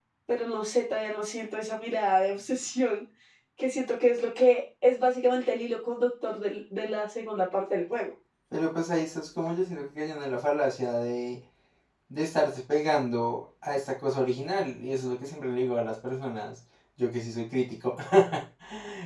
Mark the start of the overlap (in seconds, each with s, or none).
none